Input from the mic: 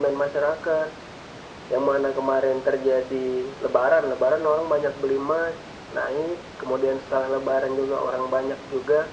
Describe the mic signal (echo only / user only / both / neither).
echo only